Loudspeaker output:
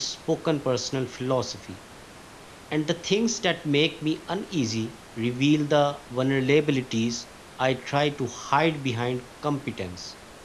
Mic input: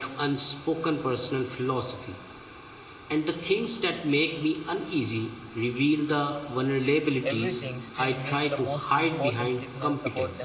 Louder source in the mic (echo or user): echo